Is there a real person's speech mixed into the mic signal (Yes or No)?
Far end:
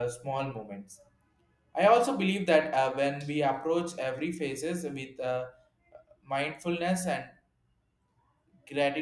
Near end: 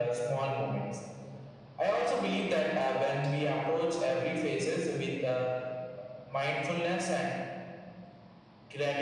No